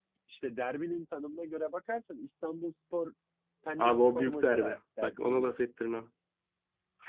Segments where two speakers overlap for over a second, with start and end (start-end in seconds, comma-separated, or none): 3.8-5.5